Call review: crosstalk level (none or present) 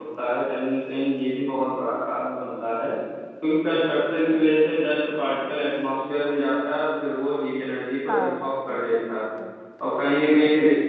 present